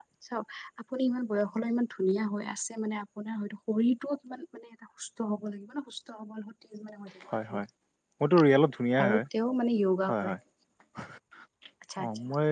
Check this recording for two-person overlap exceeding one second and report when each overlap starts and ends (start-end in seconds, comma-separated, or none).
none